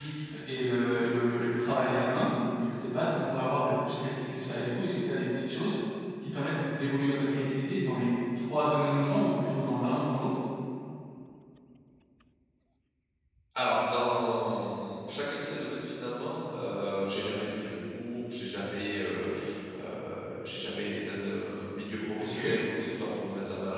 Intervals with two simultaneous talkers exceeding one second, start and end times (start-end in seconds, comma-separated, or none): none